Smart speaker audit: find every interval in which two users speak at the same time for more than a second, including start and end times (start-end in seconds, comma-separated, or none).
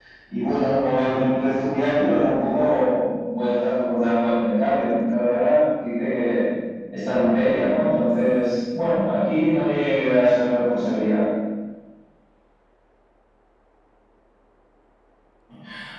none